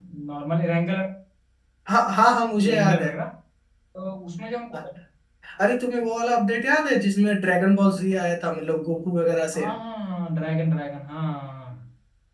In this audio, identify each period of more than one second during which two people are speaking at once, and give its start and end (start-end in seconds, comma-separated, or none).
none